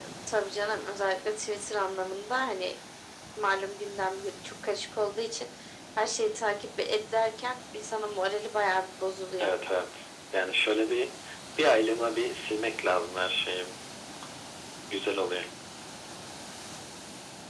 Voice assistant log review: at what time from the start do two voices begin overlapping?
none

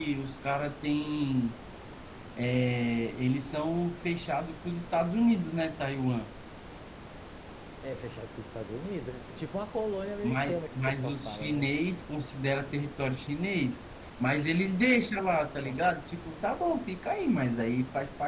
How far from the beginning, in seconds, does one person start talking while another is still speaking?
10.2 s

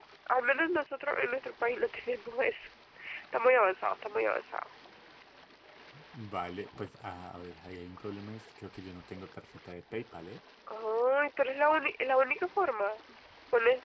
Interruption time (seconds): none

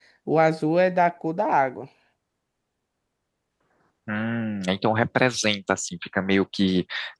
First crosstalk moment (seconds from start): none

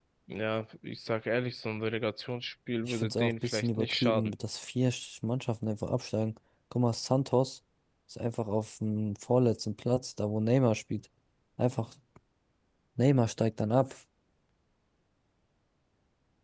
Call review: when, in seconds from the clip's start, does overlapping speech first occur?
2.8 s

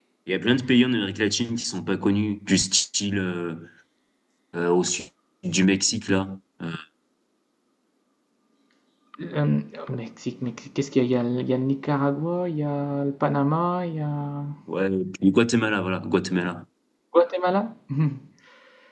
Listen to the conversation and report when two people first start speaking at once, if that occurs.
none

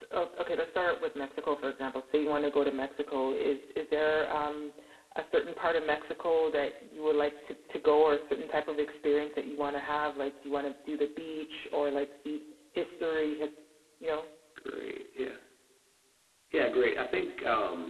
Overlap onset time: none

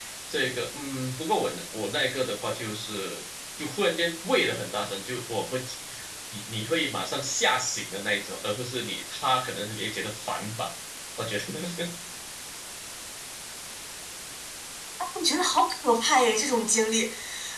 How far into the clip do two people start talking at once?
none

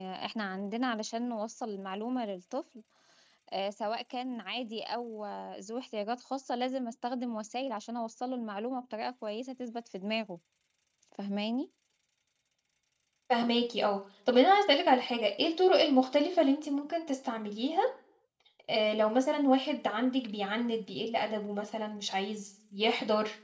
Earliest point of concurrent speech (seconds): none

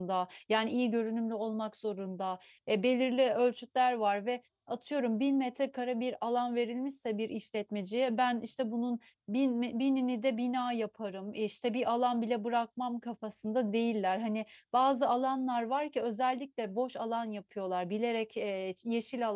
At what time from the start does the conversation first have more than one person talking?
none

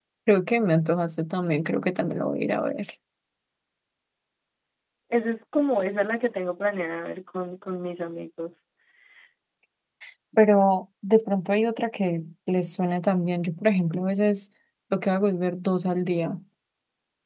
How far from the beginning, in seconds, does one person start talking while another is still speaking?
none

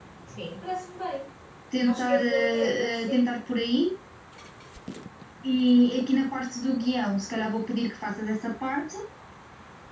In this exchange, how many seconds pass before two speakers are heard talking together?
1.9 s

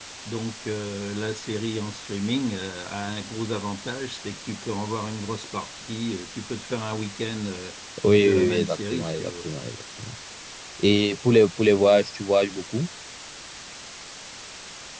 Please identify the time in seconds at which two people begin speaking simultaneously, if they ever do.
8.2 s

